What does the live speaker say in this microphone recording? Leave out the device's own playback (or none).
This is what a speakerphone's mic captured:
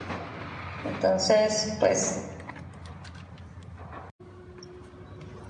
Entonces, pues,